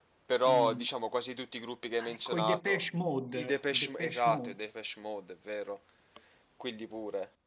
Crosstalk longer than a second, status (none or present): present